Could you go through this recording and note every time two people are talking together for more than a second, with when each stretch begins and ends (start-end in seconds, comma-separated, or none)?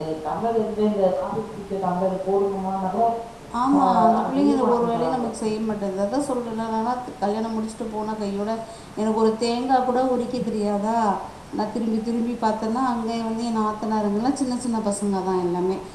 3.8-5.2